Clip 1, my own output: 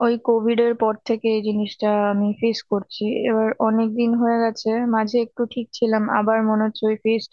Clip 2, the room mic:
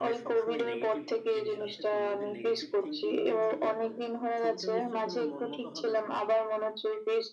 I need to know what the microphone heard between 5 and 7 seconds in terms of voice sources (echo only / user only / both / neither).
both